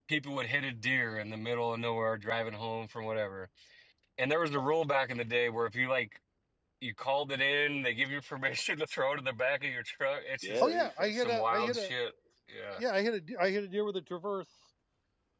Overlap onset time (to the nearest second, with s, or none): 10 s